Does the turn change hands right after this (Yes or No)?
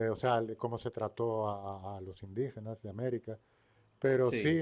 No